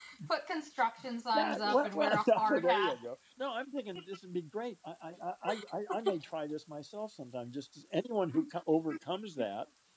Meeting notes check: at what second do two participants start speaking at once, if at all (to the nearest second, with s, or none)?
1 s